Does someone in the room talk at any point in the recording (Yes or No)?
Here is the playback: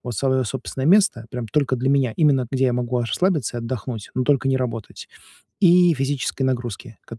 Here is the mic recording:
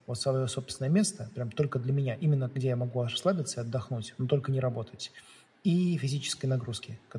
No